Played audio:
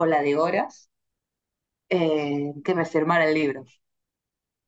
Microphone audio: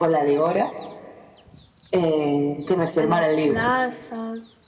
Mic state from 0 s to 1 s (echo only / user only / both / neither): echo only